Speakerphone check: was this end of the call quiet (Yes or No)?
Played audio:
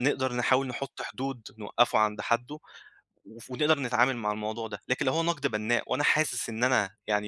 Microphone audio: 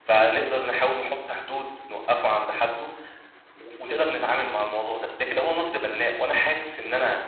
Yes